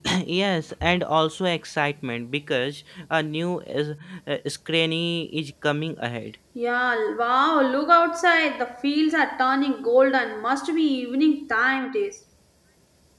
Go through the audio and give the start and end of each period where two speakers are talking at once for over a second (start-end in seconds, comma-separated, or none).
none